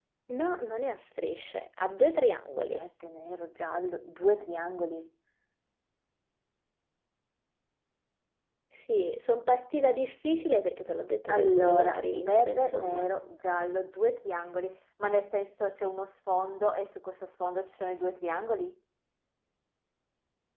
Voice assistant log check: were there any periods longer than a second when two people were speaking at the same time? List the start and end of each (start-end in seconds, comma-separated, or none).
11.3-13.1